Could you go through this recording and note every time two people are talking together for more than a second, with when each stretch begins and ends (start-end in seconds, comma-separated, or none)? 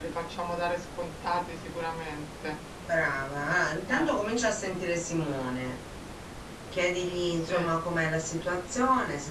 none